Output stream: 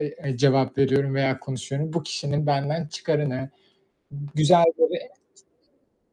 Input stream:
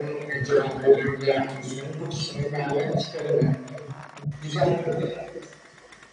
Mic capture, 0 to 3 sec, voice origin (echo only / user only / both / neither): echo only